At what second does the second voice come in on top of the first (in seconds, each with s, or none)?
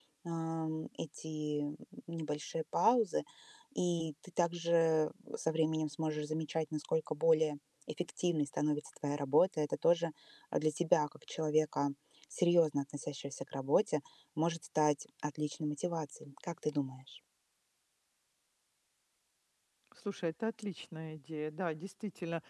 none